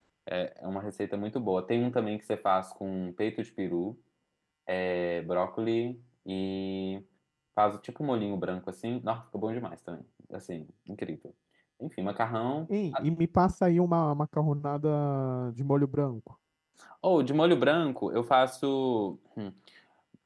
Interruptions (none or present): none